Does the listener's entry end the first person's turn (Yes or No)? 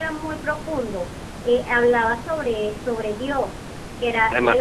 No